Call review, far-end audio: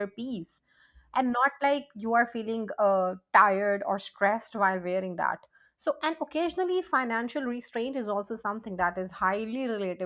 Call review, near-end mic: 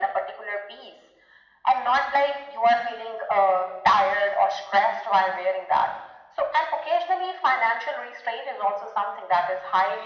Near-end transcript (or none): none